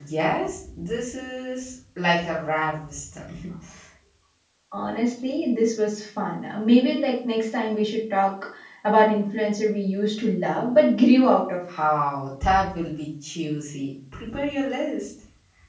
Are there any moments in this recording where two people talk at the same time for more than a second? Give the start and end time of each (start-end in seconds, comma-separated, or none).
none